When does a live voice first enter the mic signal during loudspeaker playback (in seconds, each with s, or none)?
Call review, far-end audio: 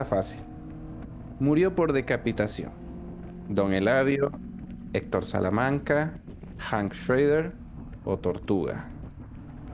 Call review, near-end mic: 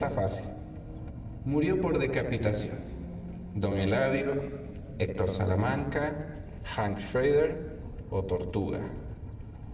none